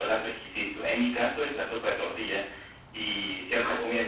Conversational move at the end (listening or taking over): listening